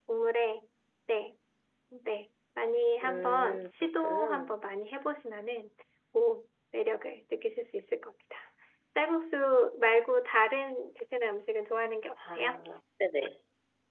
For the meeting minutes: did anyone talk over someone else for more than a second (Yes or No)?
Yes